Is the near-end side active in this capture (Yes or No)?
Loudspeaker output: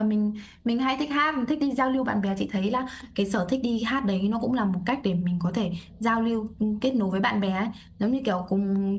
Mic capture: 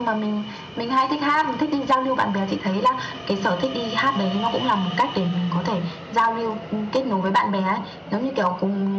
No